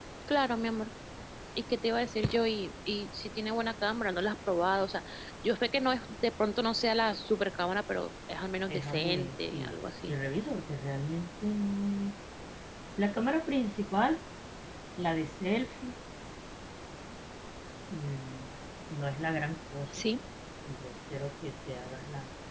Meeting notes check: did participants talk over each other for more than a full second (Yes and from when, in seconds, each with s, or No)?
Yes, from 8.7 s